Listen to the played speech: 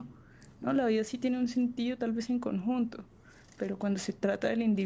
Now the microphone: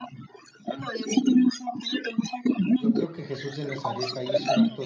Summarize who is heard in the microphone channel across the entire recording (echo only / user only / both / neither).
both